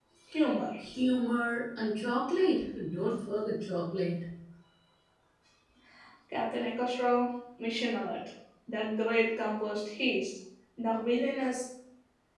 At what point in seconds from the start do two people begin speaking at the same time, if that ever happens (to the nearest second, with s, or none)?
none